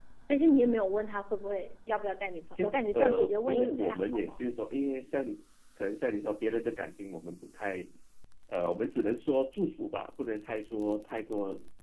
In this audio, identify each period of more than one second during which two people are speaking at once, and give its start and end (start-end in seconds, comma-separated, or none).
2.5-4.4